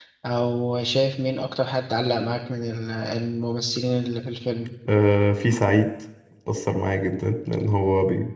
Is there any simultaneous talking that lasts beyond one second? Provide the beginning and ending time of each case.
none

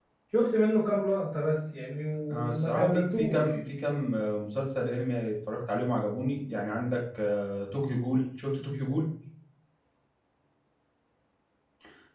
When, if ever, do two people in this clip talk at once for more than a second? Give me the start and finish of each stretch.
2.3-3.6

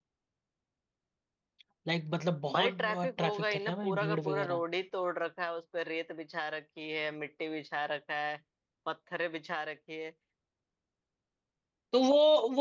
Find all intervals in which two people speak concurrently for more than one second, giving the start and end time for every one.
2.5-4.6

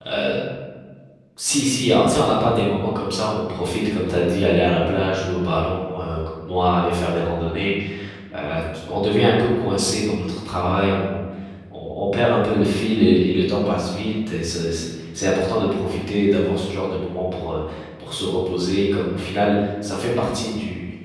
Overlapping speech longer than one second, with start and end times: none

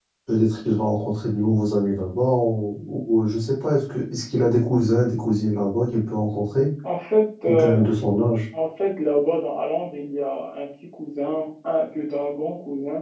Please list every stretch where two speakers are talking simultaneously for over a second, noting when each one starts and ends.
none

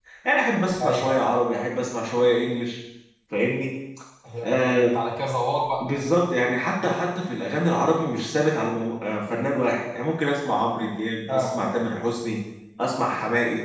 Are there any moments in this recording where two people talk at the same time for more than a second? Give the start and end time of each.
none

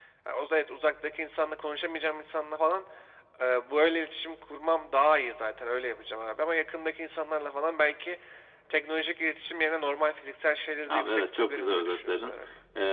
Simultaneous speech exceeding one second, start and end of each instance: 10.9-12.3

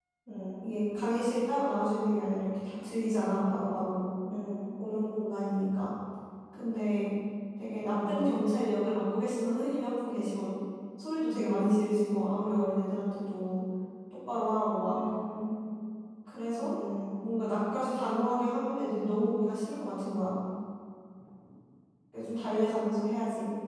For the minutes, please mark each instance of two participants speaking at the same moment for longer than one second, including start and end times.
none

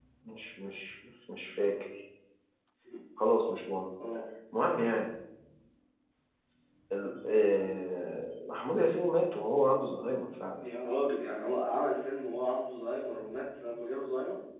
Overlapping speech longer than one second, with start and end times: none

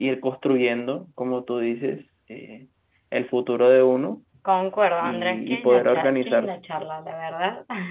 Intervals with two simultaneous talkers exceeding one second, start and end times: 5.0-6.5

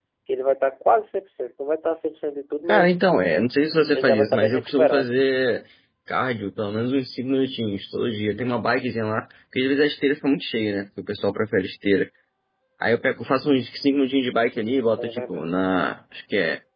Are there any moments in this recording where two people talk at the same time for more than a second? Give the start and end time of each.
3.9-5.1

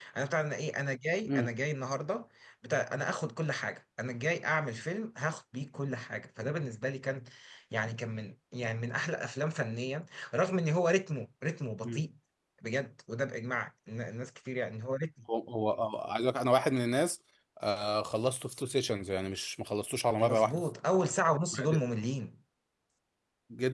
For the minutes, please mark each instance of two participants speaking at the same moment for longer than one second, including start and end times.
none

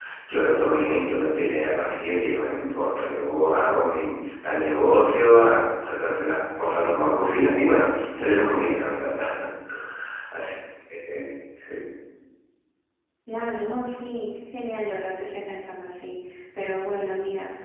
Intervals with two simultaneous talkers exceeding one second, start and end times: none

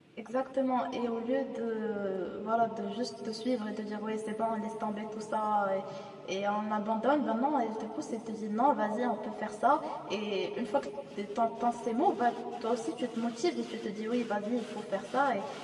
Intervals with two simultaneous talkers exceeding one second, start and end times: none

